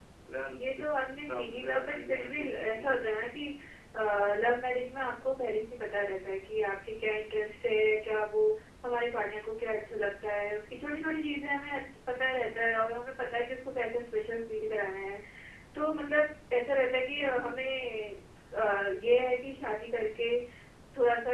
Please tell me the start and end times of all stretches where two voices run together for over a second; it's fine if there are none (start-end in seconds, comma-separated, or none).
0.6-2.9